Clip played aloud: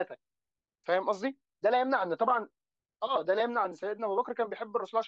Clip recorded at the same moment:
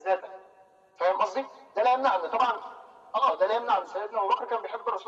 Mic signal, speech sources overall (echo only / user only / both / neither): echo only